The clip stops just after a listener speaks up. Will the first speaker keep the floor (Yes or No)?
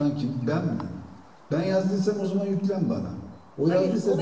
No